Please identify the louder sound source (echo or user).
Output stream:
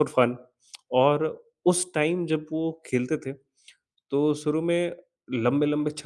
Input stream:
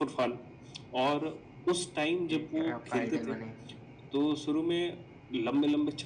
echo